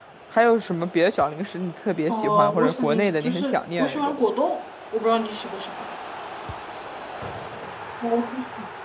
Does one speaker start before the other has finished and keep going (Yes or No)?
Yes